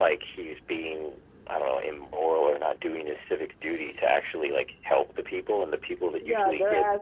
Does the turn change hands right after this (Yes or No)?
Yes